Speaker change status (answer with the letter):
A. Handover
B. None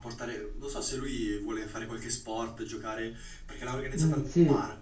A